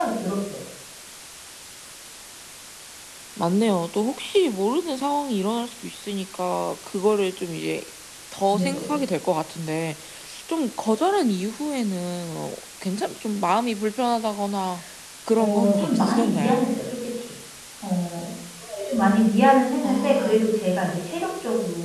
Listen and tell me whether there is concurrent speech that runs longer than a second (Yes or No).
Yes